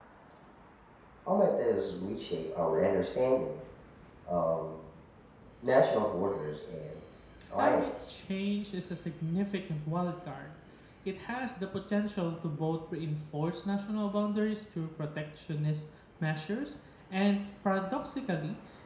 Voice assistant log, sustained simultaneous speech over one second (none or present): none